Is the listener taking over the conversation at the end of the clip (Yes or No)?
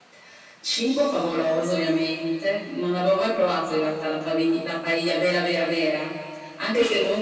No